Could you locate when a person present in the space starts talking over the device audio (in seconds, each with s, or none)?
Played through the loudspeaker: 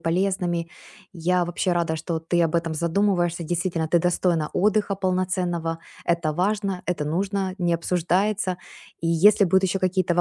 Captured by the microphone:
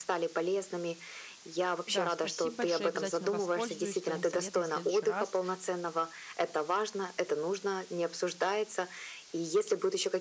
1.8 s